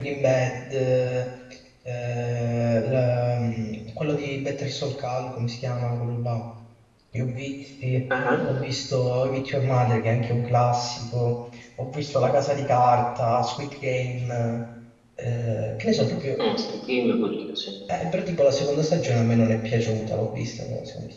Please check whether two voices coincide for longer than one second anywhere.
No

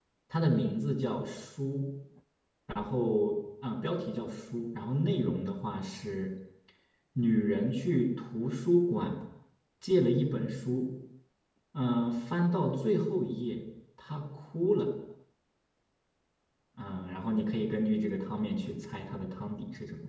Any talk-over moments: No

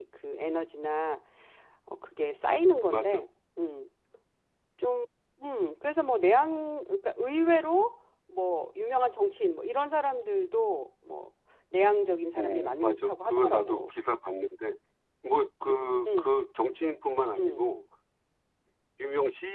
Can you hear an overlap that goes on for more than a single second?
Yes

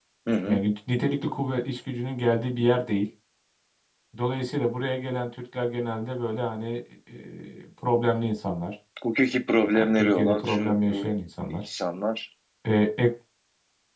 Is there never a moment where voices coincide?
No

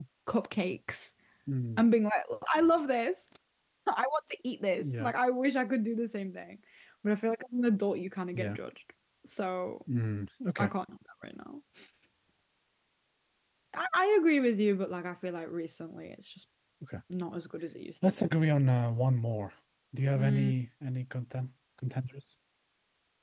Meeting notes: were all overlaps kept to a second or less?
Yes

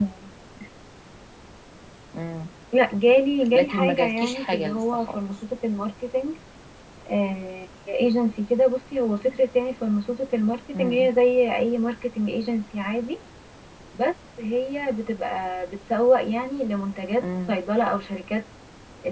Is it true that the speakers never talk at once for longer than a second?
No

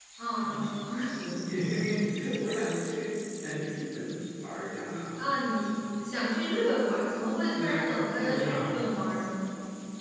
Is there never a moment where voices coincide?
No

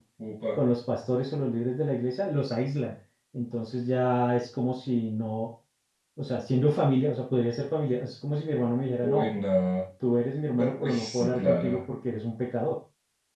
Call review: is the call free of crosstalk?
No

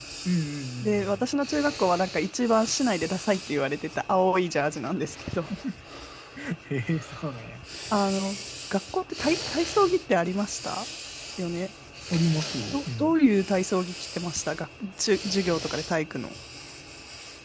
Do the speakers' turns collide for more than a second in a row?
No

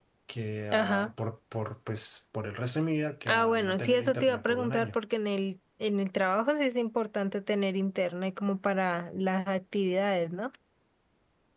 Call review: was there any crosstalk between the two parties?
Yes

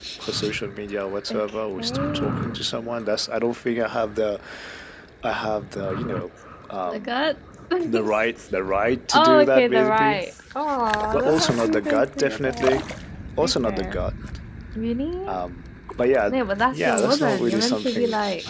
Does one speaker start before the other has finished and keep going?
Yes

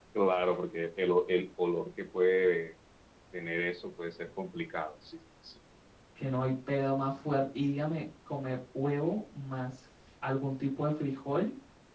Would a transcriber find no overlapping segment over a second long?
Yes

